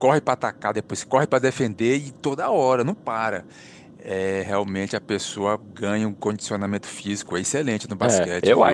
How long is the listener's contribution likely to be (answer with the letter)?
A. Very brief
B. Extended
B